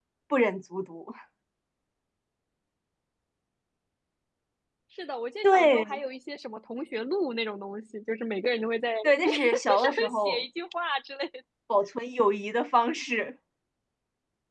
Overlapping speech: Yes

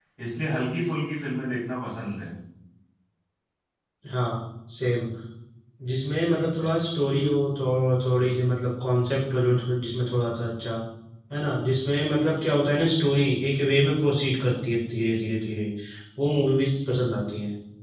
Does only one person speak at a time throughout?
Yes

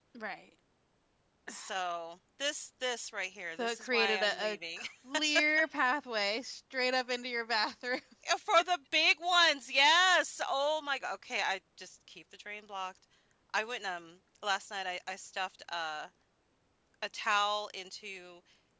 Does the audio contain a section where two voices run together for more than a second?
Yes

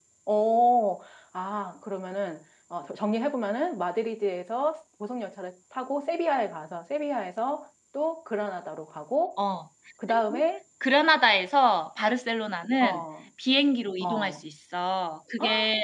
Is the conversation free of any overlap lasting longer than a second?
Yes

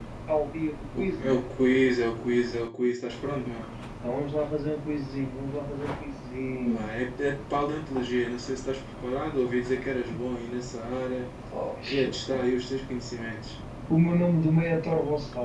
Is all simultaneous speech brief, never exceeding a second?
Yes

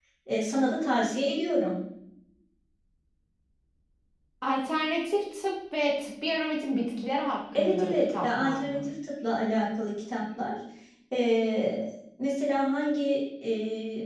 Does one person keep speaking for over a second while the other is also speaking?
Yes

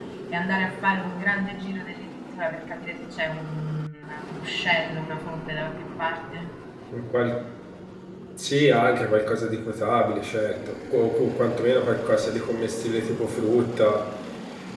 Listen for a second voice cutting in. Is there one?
No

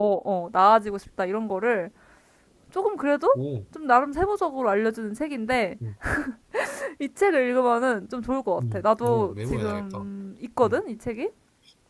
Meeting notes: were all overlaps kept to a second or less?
No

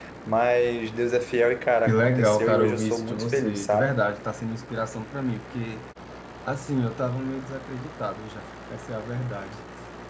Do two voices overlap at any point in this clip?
Yes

